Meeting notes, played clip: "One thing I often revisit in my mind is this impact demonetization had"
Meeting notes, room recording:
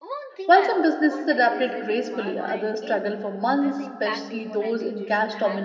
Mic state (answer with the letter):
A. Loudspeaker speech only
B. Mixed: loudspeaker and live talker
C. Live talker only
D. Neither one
B